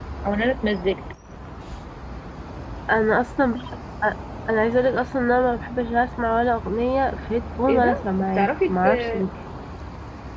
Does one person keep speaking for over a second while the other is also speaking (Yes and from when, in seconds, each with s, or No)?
Yes, from 7.7 s